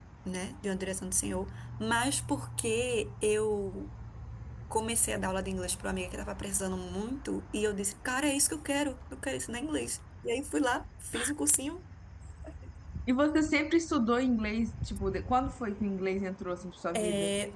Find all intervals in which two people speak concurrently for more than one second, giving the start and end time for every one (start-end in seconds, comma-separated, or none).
none